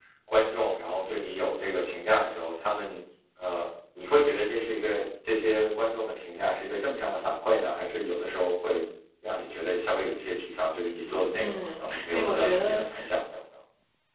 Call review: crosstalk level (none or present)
present